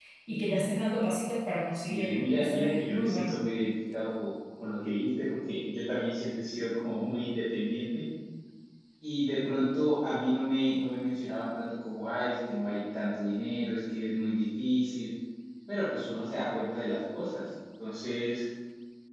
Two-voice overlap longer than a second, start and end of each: 1.7-3.3

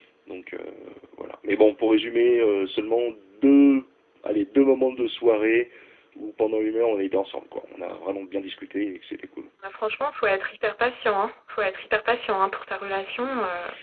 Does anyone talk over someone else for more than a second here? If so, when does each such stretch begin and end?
none

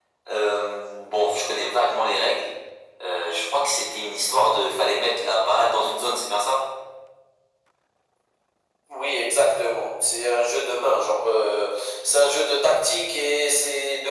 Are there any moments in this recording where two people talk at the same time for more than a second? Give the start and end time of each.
none

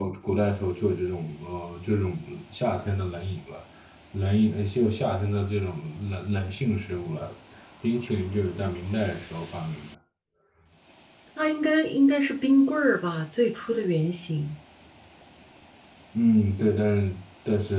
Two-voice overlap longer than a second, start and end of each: none

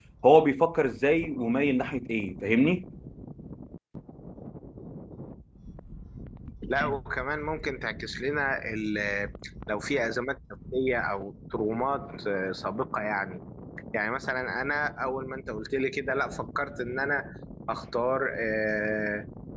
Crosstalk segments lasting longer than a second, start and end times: none

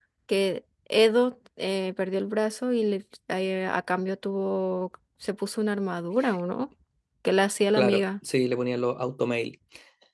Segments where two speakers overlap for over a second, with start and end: none

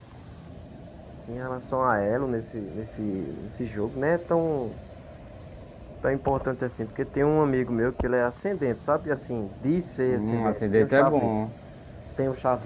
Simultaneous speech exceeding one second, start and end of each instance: 10.1-11.3

